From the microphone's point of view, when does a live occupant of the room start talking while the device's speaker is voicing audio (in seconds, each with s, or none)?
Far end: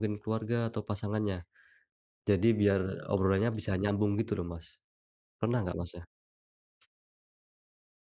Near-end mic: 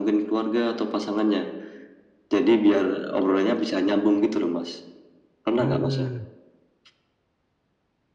5.6 s